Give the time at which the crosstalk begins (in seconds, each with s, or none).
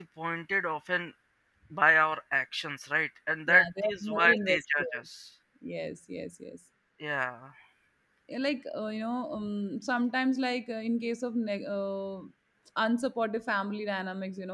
3.5 s